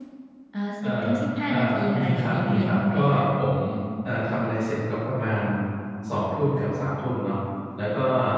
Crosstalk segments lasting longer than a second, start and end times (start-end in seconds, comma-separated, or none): 1.5-3.2